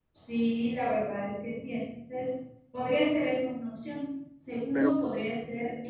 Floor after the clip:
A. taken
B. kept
B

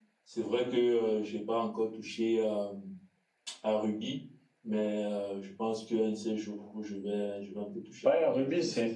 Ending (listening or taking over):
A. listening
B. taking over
B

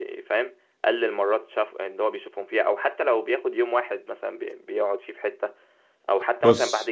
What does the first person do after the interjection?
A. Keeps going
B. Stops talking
A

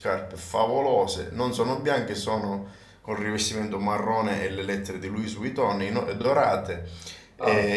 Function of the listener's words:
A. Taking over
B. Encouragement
B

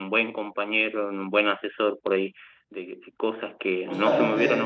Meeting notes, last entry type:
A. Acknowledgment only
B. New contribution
A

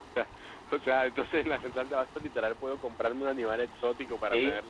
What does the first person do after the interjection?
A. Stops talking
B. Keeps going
A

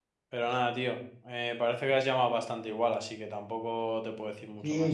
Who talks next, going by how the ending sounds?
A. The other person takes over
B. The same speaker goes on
A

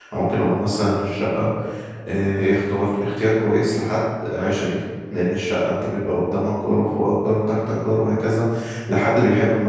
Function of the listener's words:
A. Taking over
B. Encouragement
B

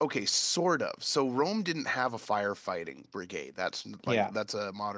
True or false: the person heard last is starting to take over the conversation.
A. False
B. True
A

